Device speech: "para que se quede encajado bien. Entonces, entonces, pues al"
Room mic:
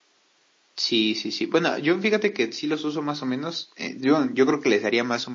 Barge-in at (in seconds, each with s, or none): 0.8 s